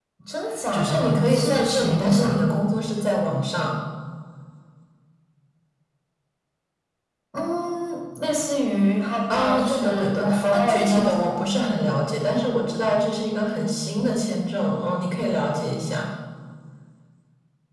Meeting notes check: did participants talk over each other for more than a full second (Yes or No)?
Yes